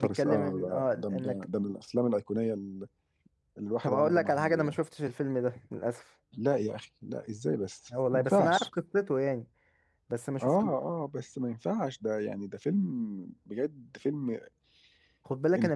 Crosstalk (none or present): present